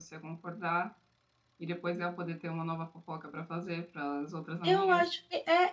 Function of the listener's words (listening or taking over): taking over